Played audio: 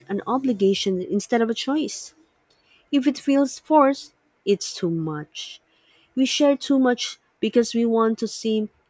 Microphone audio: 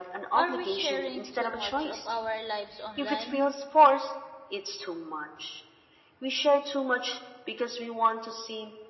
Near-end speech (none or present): present